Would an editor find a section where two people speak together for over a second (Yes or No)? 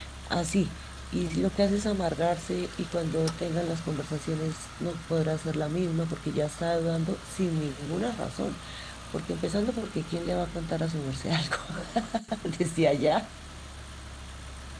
No